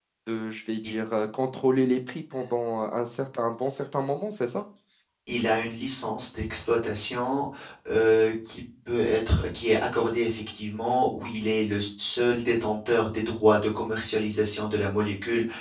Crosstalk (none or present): none